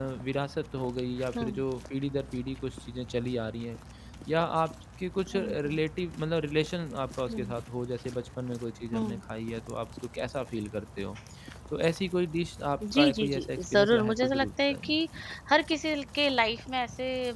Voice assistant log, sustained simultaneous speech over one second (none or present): present